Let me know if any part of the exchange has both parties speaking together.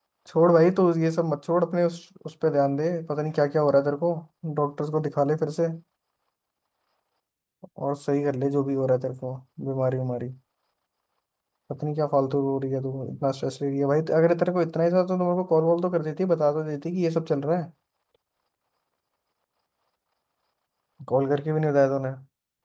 No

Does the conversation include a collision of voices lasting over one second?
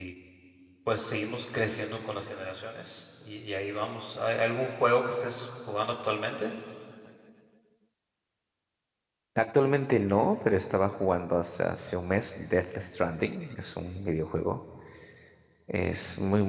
No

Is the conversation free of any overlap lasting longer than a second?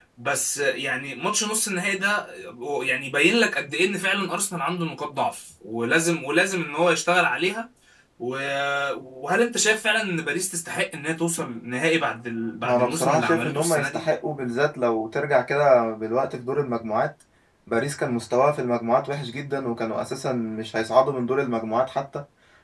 No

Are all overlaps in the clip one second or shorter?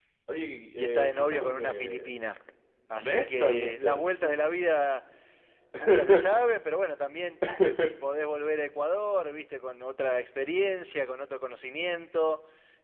No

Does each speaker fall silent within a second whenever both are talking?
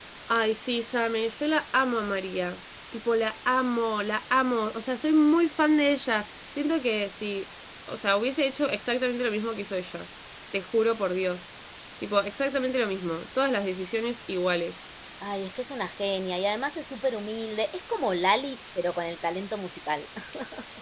Yes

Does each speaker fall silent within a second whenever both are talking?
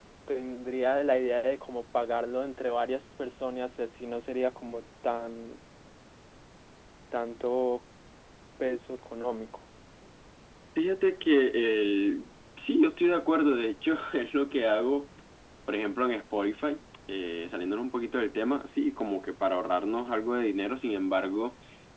Yes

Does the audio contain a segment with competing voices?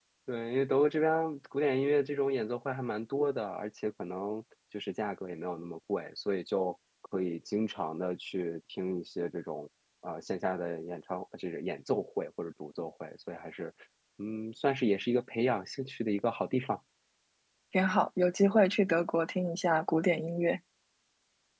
No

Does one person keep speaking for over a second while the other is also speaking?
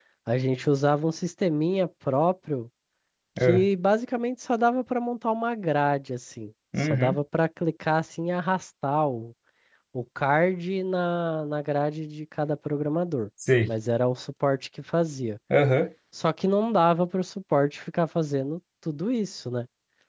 No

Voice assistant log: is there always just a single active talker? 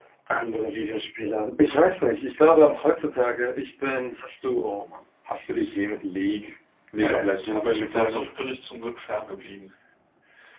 No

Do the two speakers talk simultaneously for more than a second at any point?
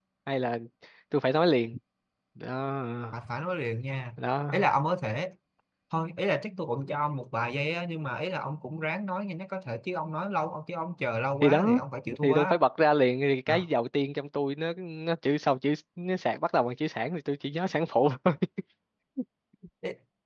No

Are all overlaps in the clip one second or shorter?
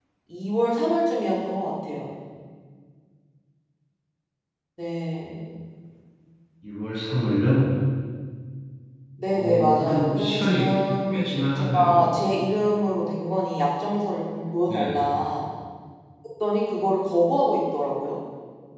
No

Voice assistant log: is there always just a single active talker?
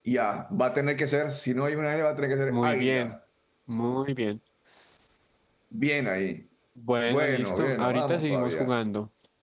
No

